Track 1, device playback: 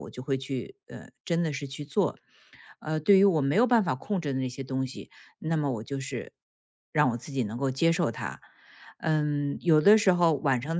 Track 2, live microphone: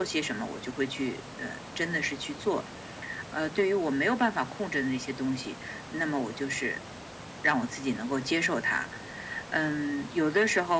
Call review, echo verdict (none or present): present